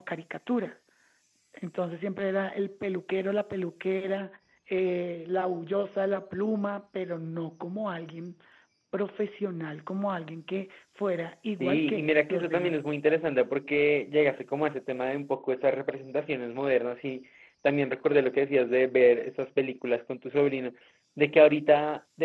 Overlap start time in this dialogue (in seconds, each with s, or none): 11.6 s